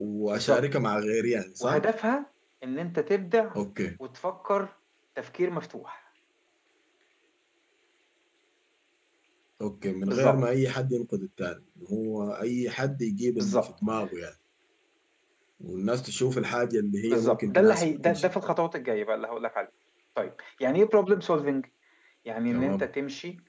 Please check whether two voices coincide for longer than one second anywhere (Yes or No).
Yes